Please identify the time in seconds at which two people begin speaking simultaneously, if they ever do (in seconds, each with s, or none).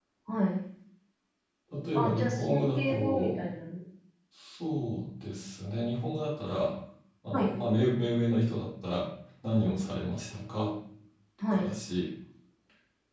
1.9 s